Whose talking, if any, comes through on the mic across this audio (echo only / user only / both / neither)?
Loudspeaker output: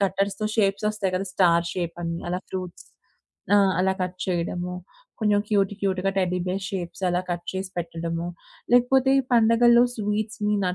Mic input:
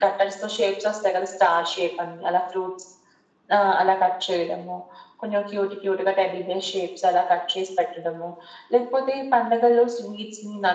echo only